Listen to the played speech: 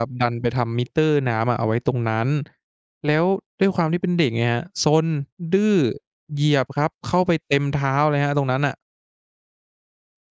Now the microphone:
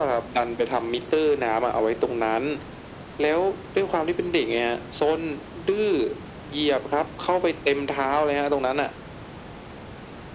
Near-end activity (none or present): none